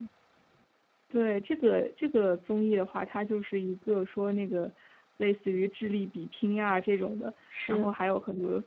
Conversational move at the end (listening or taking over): listening